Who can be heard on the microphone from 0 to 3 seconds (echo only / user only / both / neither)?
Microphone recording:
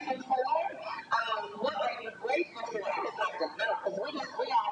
echo only